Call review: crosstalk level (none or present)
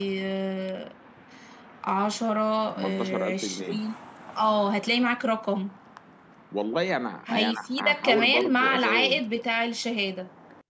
present